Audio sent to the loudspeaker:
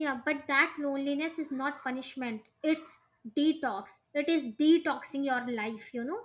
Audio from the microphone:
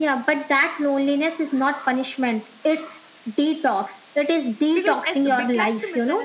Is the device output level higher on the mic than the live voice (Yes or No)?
Yes